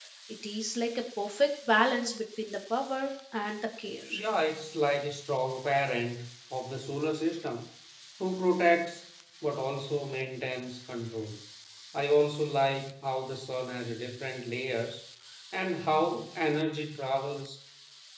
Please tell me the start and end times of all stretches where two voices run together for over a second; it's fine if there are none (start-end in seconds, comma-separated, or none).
none